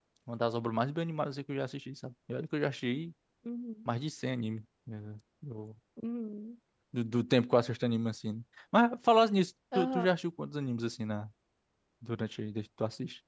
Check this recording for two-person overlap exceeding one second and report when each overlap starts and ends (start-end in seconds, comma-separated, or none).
none